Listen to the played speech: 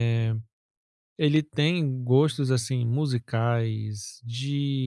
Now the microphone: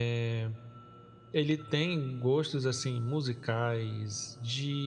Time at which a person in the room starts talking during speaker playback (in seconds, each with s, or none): none